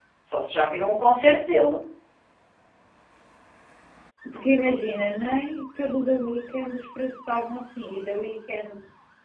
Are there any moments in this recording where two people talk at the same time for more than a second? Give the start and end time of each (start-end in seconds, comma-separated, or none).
none